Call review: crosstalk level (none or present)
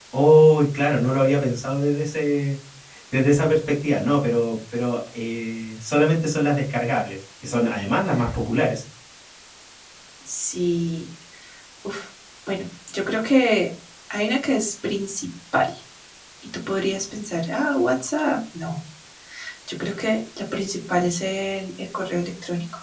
none